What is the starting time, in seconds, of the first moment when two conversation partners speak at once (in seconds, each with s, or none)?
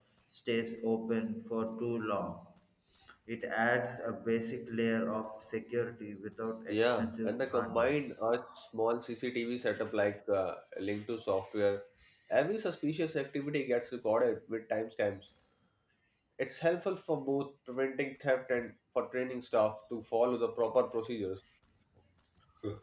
6.7 s